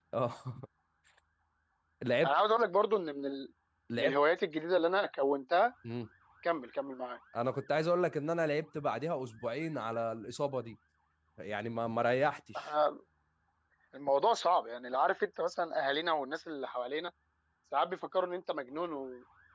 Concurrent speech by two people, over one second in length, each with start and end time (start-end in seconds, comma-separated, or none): none